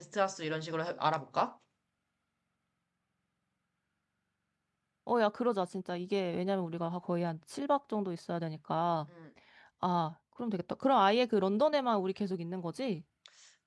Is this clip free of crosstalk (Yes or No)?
Yes